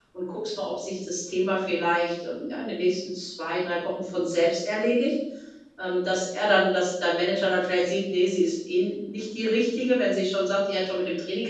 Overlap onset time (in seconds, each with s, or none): none